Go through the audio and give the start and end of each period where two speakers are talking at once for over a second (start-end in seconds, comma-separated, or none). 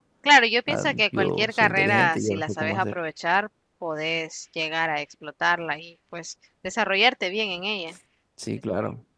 0.7-3.0